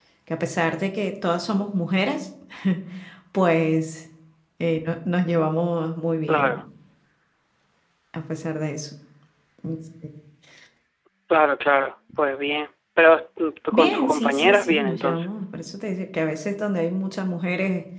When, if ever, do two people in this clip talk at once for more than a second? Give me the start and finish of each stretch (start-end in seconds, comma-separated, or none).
13.7-15.2